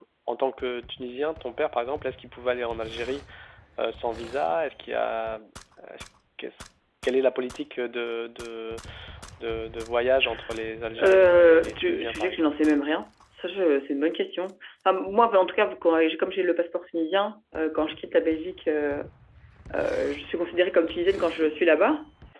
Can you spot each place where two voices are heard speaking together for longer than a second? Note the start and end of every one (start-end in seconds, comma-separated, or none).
11.0-12.5